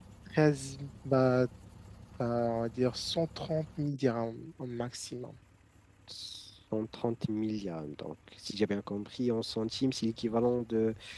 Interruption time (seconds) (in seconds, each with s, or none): none